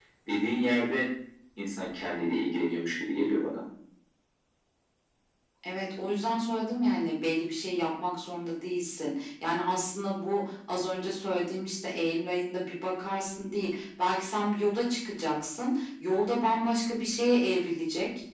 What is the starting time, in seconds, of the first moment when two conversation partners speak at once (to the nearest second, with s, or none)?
none